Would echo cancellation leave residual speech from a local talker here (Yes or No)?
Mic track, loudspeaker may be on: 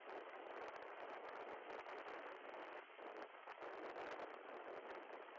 No